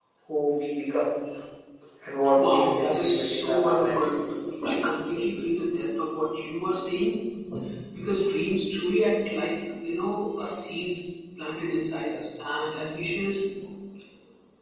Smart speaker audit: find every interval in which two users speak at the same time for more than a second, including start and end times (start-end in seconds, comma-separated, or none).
2.4-4.1